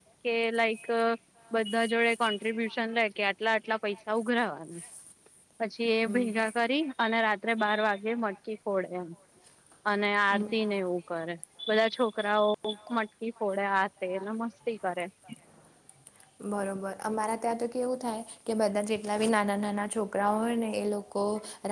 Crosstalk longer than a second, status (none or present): none